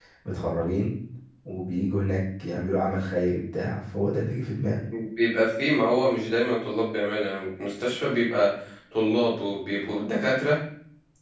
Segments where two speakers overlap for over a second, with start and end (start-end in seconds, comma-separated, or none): none